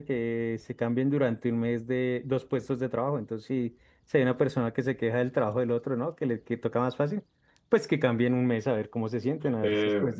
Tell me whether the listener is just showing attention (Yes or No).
Yes